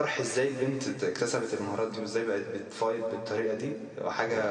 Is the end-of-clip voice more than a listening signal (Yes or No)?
No